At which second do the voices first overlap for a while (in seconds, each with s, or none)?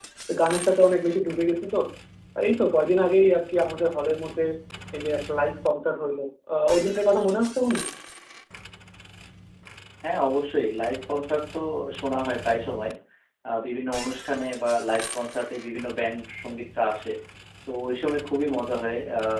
none